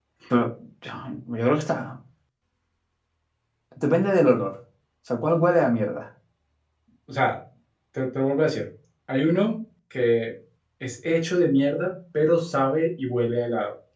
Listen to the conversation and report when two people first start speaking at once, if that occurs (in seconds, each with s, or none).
none